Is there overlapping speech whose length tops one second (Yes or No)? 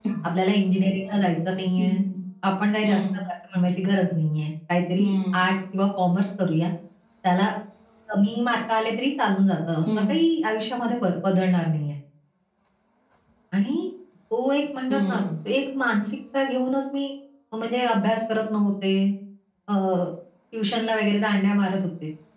No